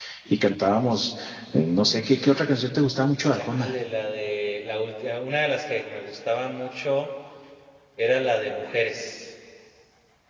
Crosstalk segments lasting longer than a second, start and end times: none

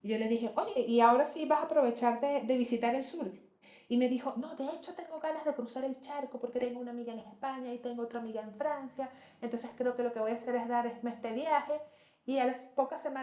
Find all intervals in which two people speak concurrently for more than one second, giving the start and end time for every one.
none

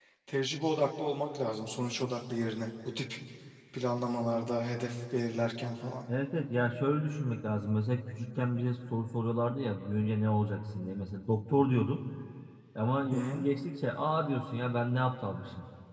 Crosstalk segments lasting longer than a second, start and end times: none

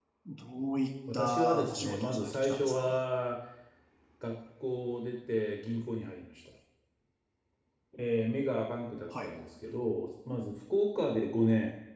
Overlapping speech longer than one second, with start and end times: 1.1-2.9

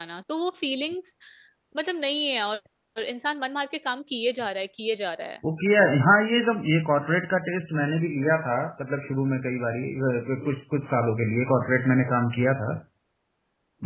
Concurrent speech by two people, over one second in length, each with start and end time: none

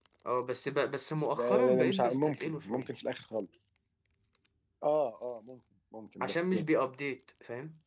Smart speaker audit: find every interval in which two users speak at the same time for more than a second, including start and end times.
1.3-2.9

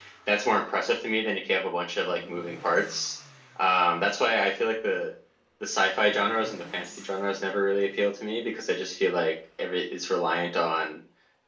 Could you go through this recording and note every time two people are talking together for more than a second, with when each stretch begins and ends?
none

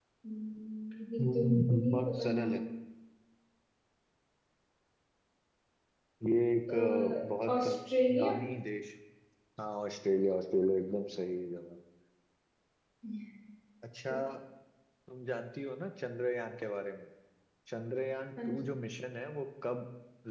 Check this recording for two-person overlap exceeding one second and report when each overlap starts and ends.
1.2-2.6

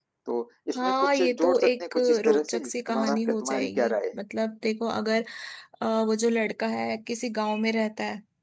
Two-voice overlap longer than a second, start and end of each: 0.7-4.2

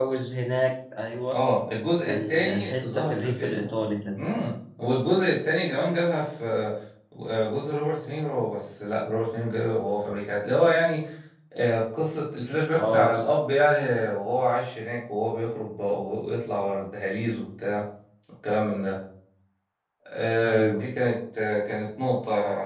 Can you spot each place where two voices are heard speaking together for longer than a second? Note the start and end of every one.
2.0-3.7

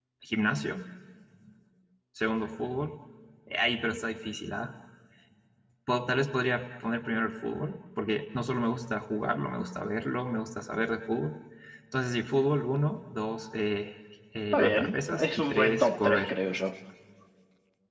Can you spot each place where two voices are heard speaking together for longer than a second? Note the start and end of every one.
14.5-16.3

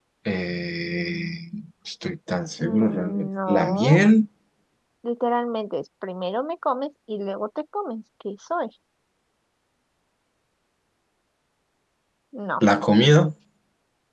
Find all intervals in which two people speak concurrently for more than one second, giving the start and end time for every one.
2.6-4.0

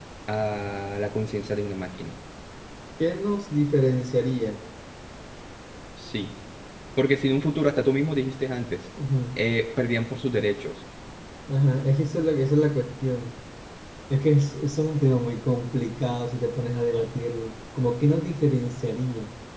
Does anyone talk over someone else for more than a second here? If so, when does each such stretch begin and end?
none

